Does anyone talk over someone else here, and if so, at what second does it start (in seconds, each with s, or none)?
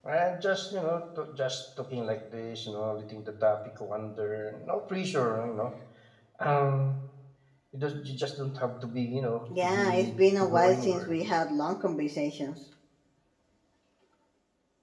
9.5 s